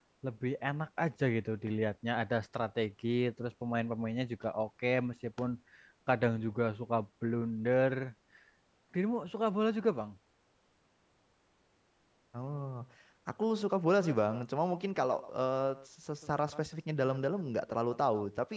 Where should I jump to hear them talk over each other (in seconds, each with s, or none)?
none